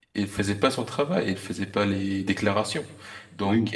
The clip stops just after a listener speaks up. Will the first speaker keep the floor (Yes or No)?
Yes